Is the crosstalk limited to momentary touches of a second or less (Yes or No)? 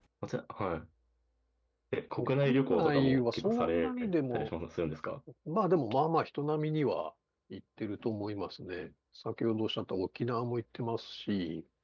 No